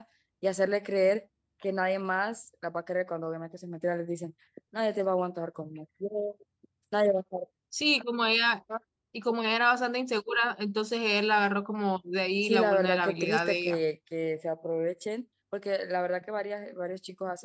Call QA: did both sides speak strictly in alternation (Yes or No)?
No